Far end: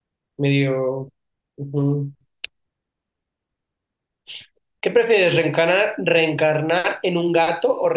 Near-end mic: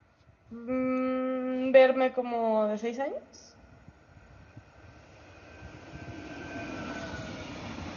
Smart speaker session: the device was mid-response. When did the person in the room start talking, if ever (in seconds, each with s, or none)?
0.5 s